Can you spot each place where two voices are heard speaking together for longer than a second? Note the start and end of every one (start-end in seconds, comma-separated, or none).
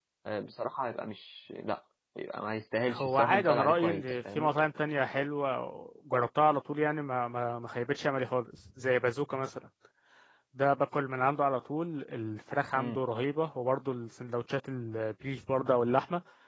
2.9-4.5